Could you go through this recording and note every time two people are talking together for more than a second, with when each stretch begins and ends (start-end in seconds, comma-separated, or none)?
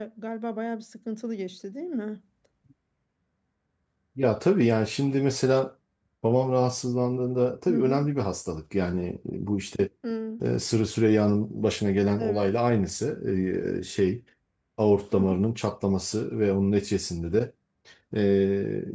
none